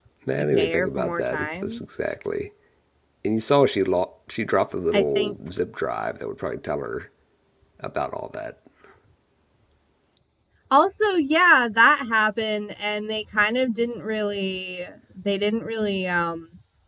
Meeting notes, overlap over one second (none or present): present